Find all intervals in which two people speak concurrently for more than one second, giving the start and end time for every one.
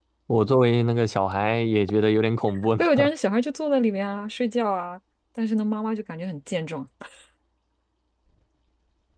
none

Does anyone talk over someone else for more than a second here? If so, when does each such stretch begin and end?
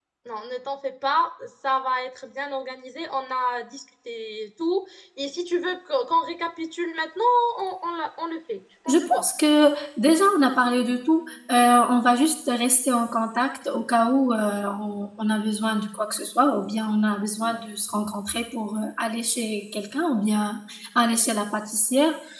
none

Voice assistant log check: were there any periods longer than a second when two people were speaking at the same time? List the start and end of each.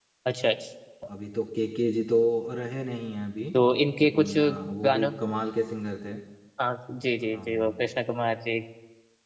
none

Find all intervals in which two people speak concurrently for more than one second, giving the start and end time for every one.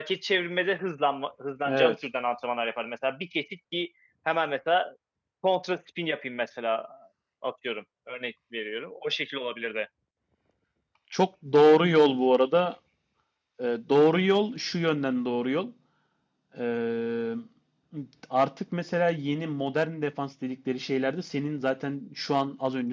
none

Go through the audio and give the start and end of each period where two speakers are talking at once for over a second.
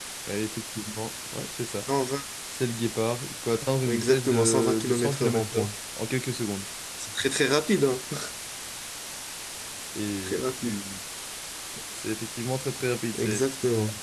3.9-5.7

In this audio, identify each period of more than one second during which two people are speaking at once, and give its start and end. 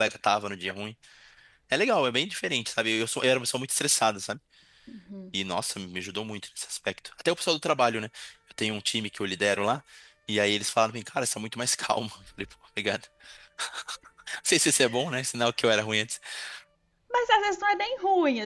none

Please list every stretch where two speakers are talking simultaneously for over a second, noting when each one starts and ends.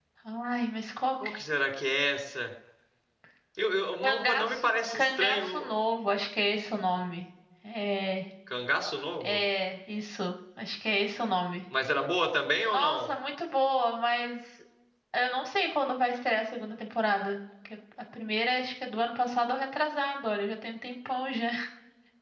4.0-5.8

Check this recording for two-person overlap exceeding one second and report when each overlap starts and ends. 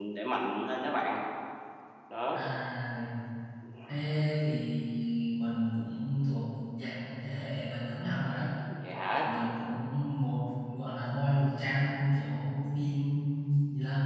none

